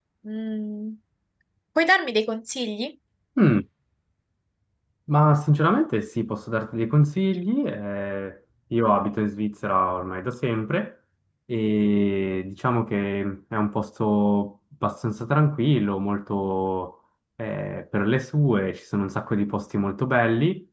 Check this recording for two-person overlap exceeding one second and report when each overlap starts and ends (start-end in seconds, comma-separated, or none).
none